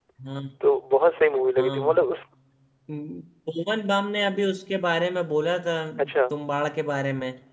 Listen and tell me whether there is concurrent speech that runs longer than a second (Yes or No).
No